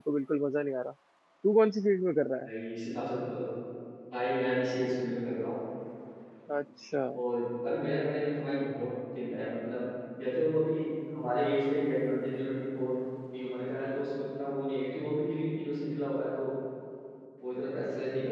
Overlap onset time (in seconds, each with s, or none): none